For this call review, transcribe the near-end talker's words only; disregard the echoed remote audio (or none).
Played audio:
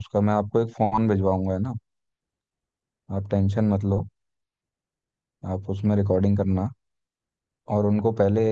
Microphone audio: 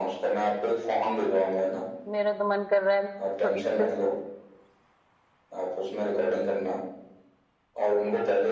तो मेरा तो मन कर रहा है इसको इसको